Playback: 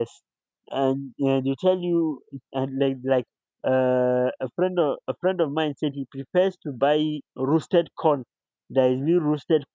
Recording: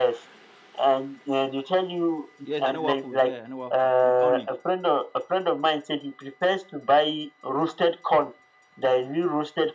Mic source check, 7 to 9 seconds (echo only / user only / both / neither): echo only